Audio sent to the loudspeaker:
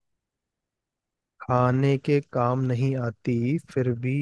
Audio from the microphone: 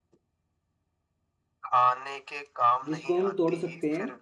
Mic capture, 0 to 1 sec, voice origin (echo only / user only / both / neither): neither